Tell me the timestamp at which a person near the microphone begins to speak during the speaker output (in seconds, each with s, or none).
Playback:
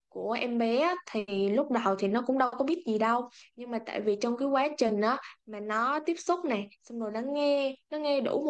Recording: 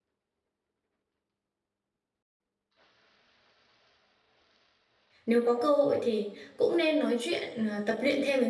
5.2 s